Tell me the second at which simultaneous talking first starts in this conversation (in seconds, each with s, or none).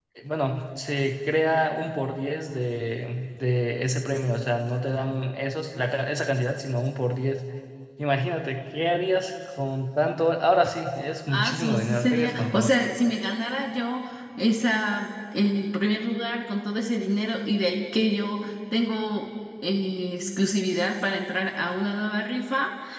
11.3 s